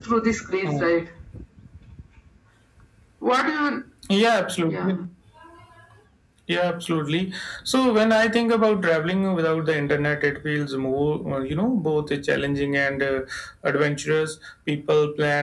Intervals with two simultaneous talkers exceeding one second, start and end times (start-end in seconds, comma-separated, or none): none